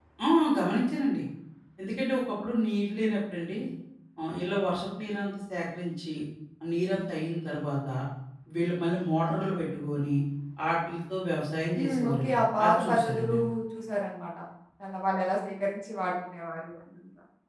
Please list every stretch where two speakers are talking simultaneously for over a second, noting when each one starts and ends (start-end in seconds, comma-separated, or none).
11.8-13.3